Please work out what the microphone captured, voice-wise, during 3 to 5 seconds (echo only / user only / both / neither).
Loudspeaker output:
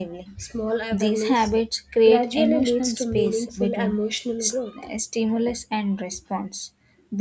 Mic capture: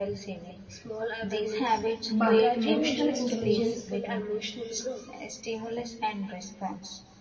both